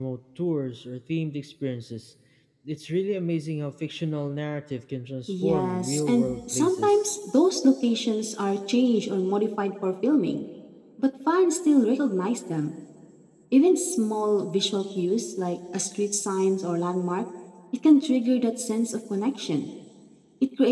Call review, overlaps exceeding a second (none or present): present